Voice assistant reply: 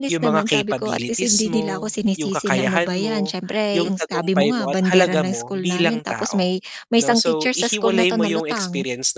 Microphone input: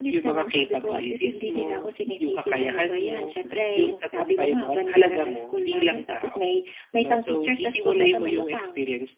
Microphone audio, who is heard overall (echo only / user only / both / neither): echo only